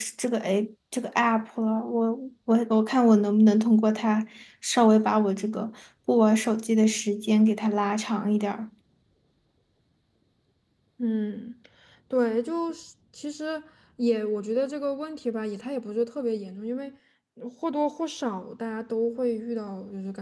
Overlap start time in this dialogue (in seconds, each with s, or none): none